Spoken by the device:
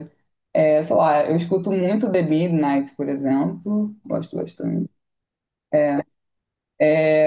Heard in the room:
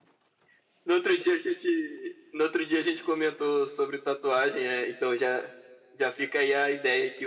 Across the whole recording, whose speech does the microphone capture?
user only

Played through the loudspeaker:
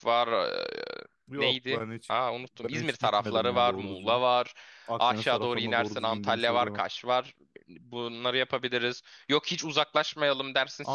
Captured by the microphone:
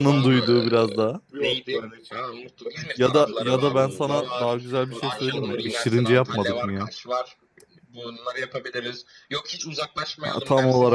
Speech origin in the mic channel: both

